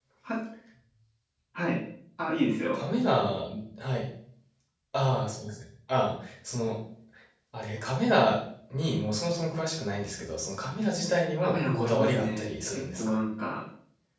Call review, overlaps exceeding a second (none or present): present